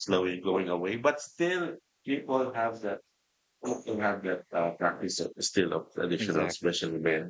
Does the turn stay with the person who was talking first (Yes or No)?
Yes